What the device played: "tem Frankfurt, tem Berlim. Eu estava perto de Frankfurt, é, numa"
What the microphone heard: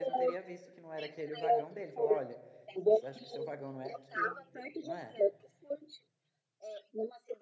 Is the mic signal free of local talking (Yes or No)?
No